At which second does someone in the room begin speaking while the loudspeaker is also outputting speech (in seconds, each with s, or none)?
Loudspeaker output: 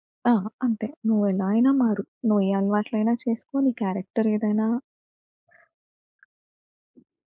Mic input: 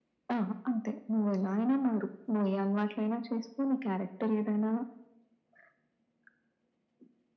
none